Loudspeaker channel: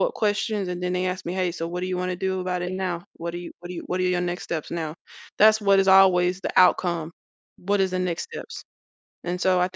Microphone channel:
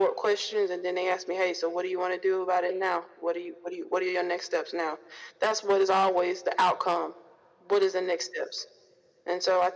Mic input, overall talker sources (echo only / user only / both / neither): echo only